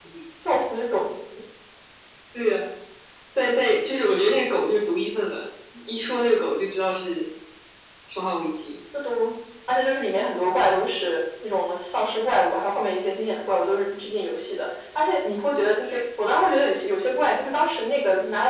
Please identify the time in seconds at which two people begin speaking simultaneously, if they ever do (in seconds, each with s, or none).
none